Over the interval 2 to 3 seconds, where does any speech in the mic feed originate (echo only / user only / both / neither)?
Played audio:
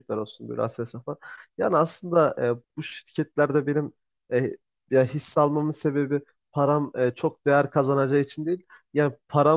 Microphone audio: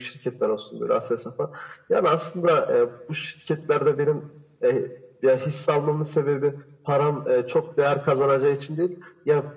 echo only